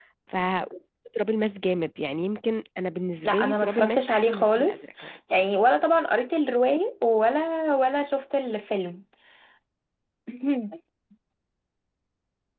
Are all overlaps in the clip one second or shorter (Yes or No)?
No